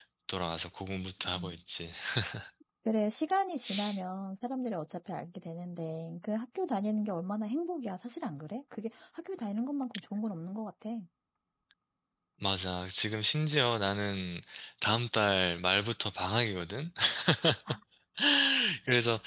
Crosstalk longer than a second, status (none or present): none